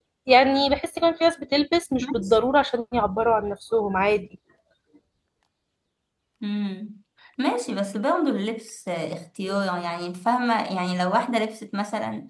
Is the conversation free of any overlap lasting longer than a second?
Yes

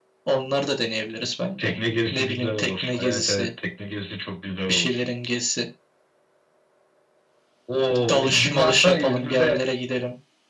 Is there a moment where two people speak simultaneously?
Yes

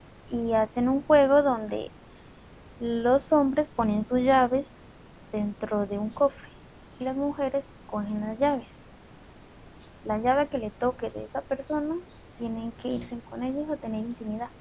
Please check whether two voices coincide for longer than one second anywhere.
No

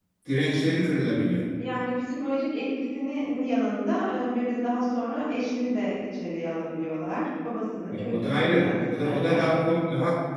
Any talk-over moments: Yes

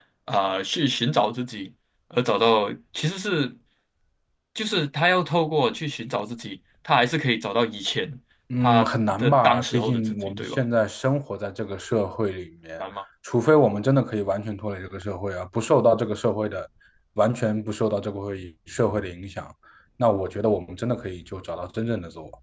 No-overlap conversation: No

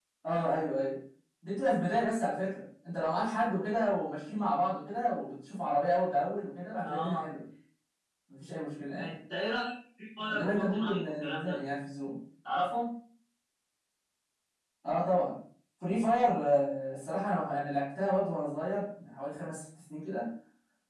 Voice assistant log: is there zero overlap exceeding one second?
No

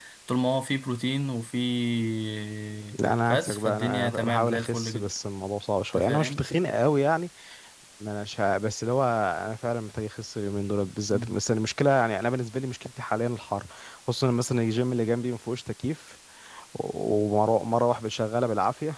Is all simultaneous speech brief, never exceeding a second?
No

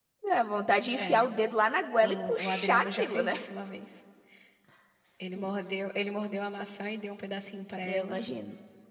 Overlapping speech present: Yes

